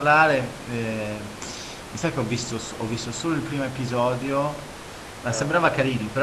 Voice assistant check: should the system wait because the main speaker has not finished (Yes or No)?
Yes